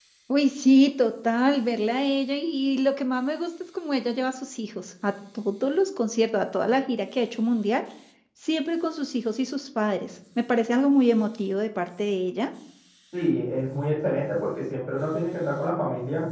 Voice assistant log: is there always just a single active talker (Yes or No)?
Yes